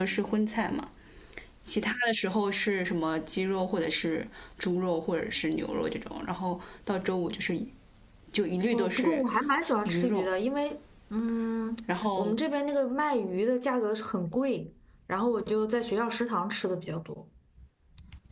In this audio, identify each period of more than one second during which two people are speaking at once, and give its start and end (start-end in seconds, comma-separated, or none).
none